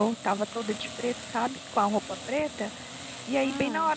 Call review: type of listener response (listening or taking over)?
listening